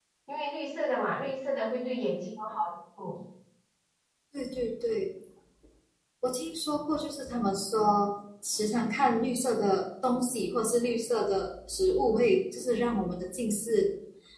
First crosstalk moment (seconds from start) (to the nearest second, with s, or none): none